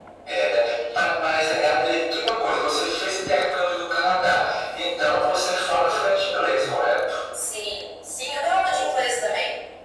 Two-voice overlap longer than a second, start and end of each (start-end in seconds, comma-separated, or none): none